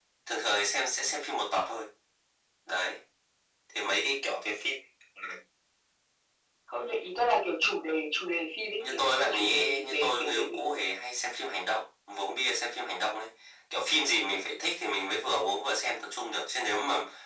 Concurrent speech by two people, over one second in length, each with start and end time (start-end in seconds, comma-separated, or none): 8.8-10.6